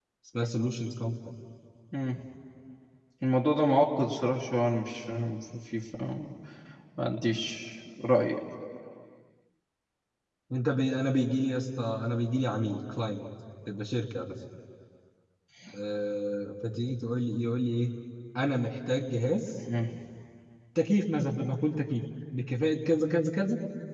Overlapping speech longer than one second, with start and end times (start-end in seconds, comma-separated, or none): none